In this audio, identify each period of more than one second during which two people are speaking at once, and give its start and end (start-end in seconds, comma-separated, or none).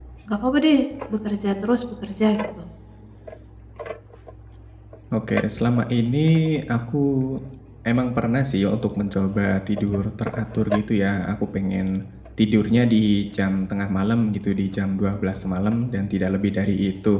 none